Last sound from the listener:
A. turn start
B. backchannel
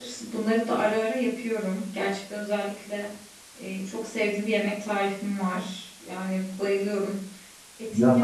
A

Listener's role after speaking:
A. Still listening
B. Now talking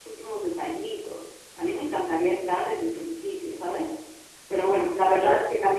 A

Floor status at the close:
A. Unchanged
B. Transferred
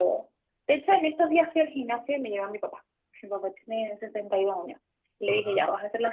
A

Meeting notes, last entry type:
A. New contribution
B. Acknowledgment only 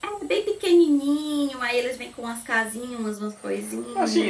A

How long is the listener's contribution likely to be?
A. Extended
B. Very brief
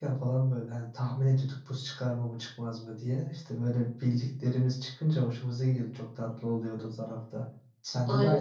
A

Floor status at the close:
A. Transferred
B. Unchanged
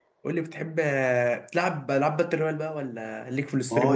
A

